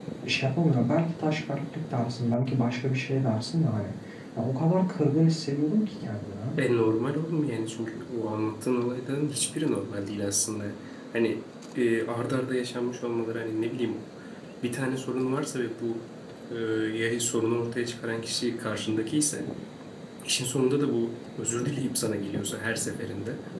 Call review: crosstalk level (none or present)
none